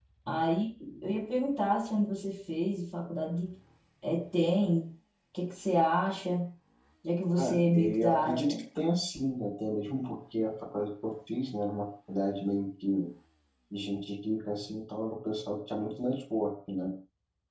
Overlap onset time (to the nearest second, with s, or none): 7 s